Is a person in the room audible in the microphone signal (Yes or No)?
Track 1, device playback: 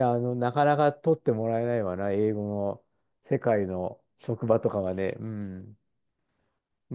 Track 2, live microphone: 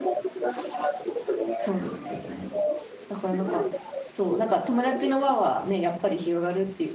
Yes